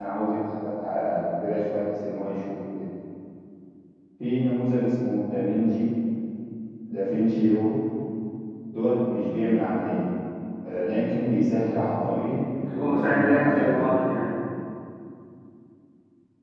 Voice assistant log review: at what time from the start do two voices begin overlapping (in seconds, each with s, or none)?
12.6 s